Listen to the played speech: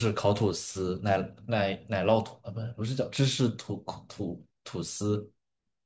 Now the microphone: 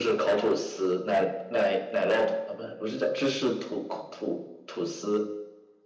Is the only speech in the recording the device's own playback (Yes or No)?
Yes